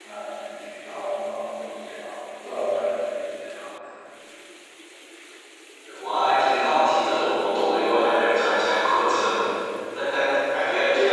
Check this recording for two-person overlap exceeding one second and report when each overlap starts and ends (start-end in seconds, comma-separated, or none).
none